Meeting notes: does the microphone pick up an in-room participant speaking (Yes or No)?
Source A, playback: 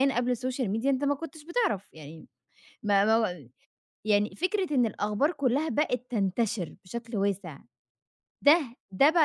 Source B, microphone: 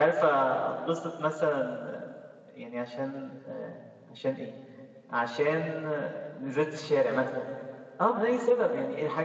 Yes